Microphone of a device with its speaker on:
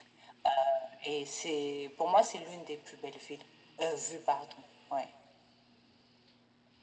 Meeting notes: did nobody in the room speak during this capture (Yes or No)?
Yes